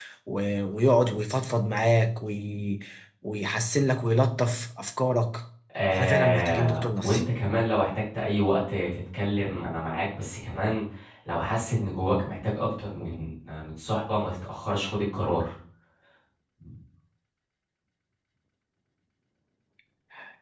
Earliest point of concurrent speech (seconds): 5.9 s

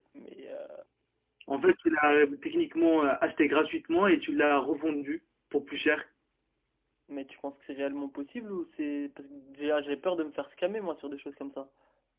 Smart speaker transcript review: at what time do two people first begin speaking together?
none

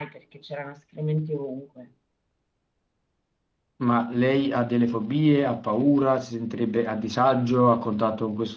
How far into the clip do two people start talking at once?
none

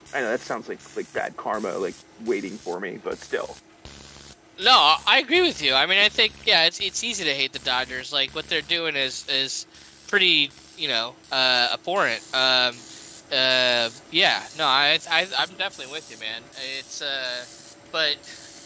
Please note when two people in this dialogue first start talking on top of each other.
none

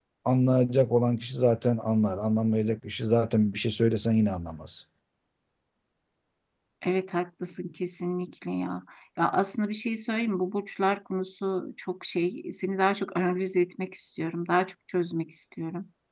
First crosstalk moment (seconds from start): none

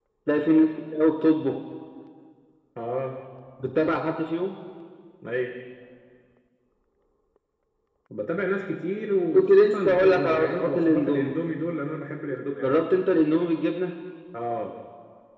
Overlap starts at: 9.3 s

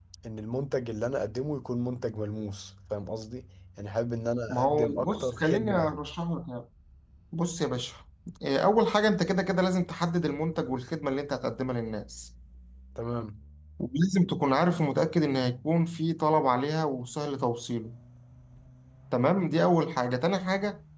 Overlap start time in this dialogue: 4.5 s

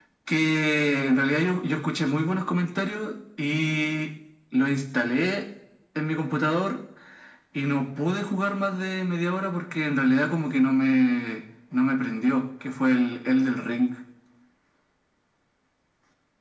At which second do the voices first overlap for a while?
none

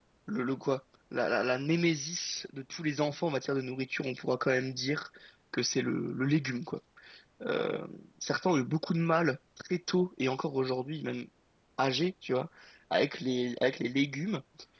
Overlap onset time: none

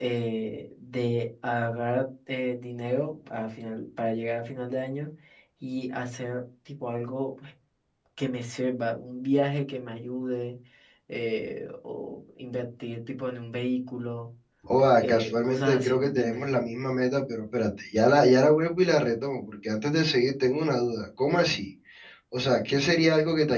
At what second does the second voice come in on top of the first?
14.9 s

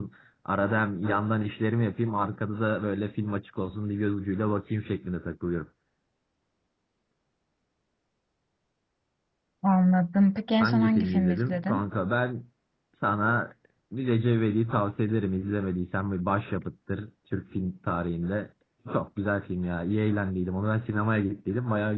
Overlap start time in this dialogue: 10.6 s

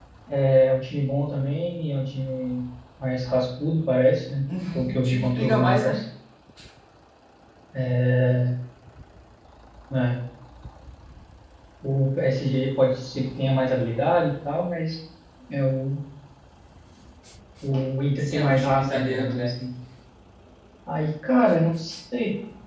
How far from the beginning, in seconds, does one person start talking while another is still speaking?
4.5 s

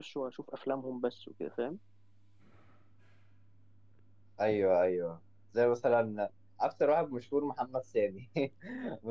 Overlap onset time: none

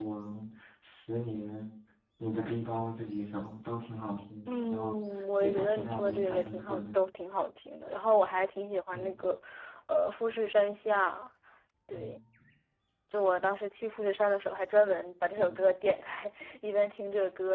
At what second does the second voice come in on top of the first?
4.5 s

